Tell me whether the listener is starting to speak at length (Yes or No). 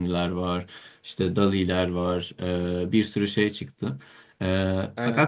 No